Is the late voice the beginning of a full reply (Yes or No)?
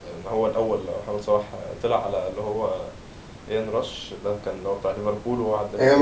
Yes